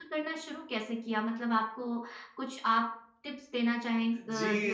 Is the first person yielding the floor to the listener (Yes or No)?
Yes